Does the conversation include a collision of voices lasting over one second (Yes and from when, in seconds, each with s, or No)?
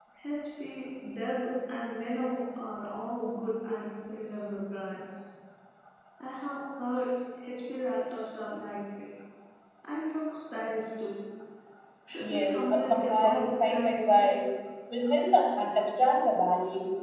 Yes, from 12.2 s